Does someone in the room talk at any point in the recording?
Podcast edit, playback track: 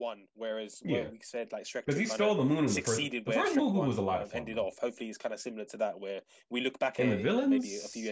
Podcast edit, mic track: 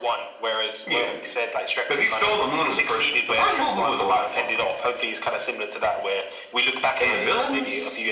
No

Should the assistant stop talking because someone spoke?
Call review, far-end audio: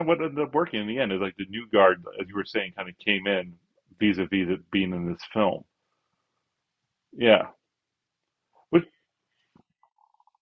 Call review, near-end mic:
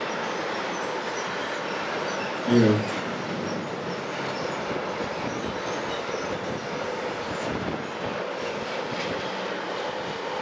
Yes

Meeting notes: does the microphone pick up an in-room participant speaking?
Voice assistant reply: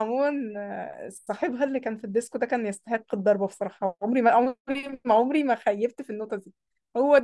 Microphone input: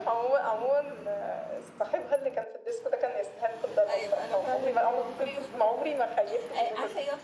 Yes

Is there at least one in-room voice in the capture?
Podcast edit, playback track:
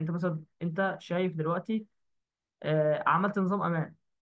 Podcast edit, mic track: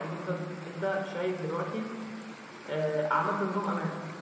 No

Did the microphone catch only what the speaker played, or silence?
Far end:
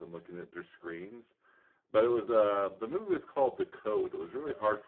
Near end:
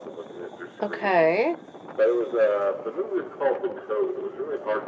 No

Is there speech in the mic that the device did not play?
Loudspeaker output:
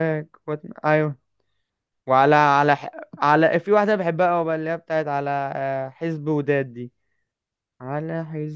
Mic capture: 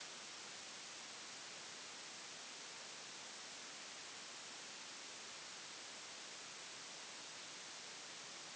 No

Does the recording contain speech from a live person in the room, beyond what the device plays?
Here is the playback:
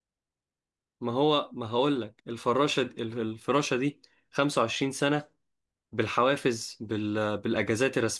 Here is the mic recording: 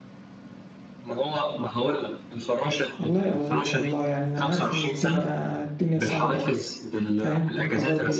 Yes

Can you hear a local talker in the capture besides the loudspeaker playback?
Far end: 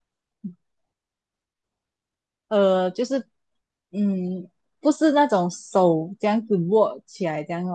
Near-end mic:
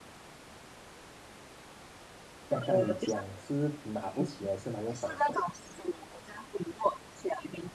Yes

